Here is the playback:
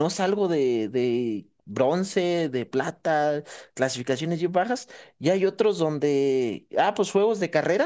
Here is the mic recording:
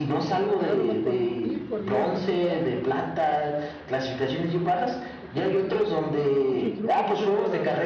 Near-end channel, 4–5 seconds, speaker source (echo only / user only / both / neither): echo only